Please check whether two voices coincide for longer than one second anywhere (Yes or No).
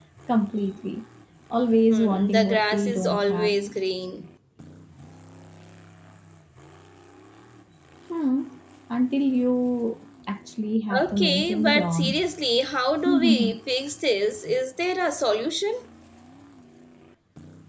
Yes